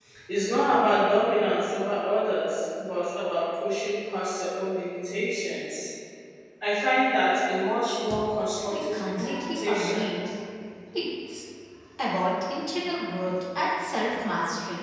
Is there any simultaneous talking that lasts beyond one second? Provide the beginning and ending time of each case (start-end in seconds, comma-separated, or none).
8.7-10.1